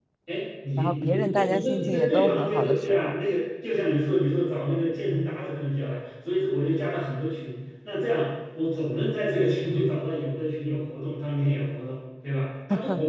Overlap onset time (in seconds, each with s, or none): 0.8 s